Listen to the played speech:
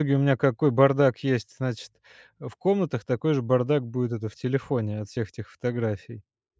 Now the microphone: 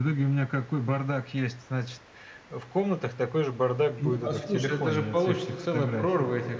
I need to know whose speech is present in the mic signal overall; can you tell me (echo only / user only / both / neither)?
both